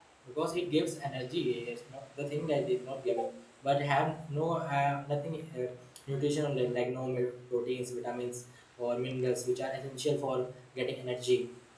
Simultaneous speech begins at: none

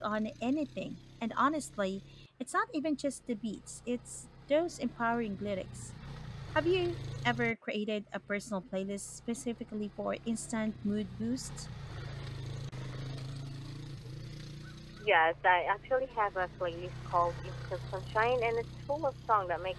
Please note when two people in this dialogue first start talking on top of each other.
none

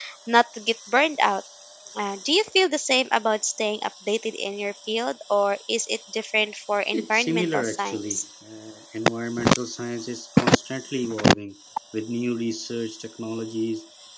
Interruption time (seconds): 6.9 s

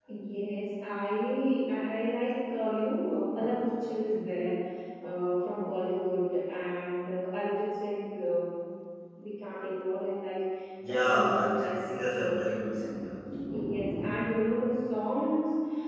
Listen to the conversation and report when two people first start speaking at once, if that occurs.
10.9 s

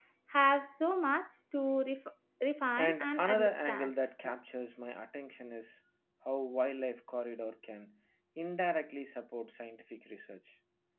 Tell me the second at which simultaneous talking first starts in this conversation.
2.8 s

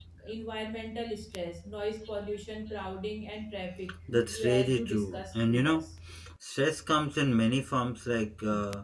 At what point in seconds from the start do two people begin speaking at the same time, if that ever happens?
4.1 s

